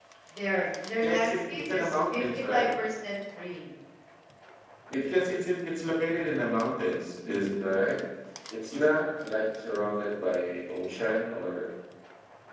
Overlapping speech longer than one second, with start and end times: 1.0-2.7

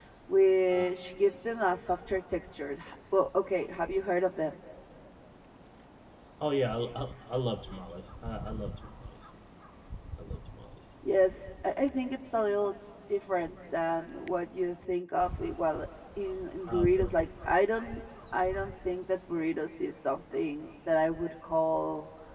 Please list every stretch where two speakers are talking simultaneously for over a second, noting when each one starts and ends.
none

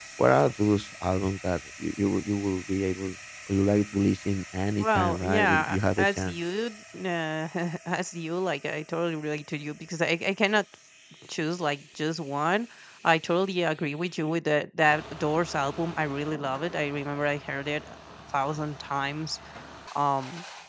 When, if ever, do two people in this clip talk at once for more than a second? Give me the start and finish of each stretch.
4.8-6.4

